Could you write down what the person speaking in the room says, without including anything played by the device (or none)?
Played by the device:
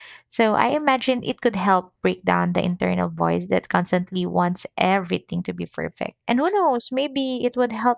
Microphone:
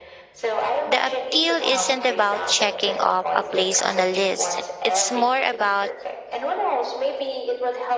The appeal isn't about checking off a place on a list. It's more about